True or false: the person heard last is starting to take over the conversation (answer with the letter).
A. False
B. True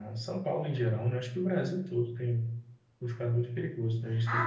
B